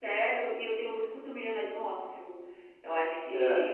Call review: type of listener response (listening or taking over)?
listening